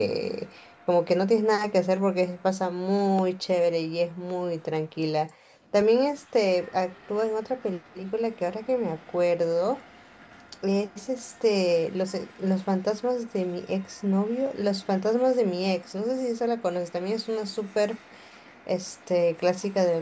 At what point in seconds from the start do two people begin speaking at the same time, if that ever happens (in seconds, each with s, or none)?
none